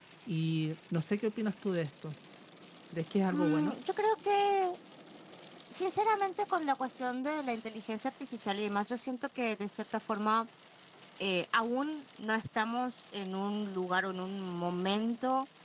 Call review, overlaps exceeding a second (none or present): none